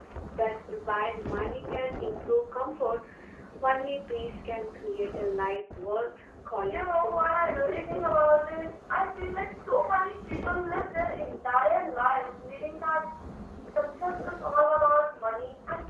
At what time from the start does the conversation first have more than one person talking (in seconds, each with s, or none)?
6.7 s